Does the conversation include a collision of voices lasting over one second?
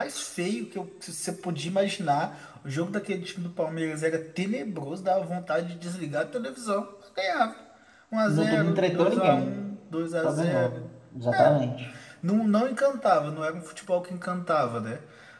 Yes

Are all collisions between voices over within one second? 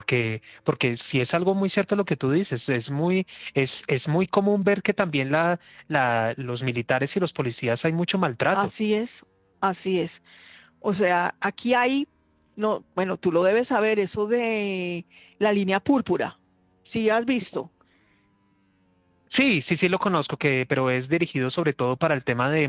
Yes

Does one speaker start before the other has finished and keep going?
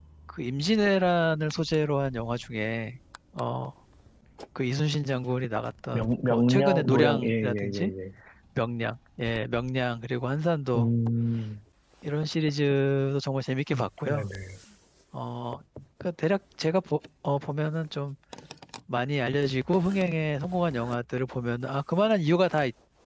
Yes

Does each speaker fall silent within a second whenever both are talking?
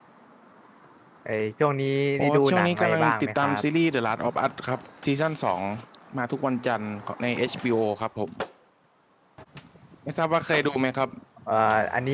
No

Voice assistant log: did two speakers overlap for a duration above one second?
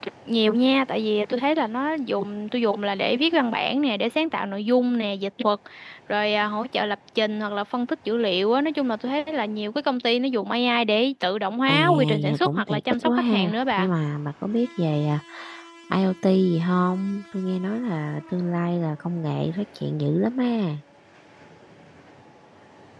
Yes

